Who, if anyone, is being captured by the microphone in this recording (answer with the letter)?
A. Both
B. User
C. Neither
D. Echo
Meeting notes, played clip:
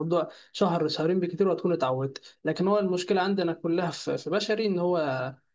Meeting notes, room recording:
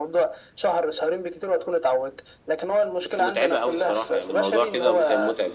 A